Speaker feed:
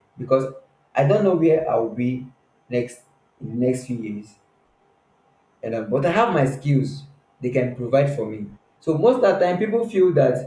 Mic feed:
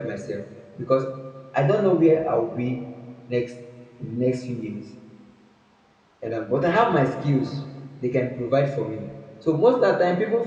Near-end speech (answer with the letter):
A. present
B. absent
B